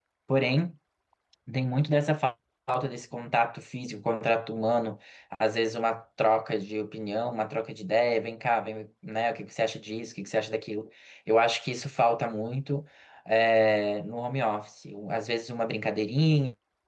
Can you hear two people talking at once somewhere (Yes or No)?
No